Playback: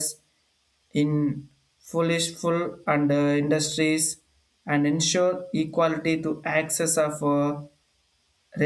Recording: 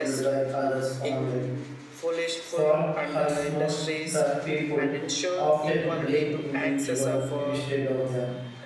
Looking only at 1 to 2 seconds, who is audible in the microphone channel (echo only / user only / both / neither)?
both